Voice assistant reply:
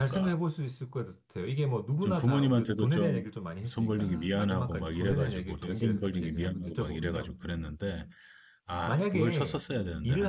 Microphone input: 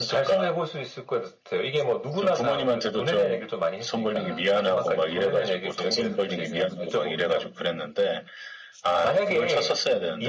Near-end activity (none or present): none